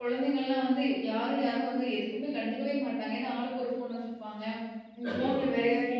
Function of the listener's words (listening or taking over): listening